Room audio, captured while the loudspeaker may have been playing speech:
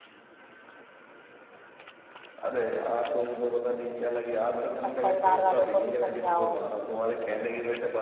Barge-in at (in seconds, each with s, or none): 4.8 s